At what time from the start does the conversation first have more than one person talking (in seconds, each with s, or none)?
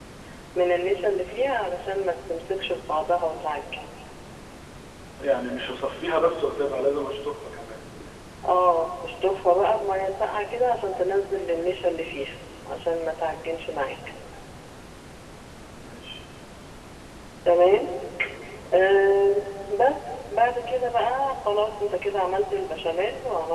none